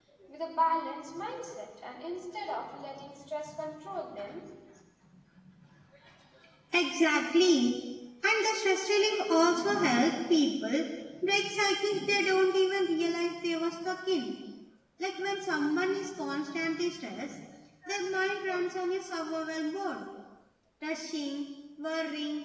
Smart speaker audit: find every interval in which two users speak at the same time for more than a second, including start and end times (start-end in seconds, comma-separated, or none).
none